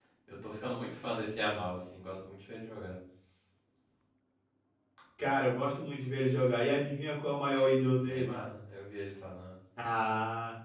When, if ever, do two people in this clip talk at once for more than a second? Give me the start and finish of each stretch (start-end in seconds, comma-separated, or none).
none